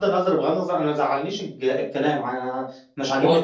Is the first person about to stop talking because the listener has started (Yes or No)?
No